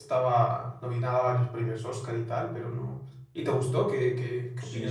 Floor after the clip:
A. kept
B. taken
B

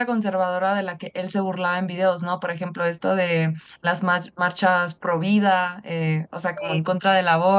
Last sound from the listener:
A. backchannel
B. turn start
A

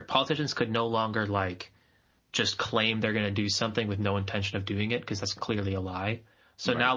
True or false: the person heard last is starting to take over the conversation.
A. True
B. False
B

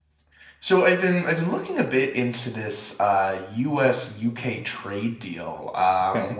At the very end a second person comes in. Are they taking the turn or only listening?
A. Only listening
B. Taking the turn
A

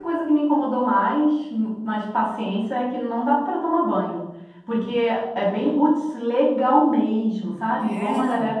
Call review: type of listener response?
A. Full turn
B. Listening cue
B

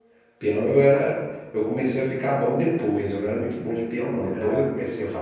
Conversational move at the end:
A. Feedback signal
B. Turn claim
A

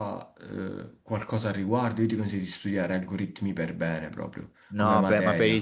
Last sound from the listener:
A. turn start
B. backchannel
A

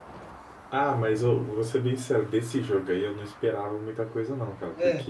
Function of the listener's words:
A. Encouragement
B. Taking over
A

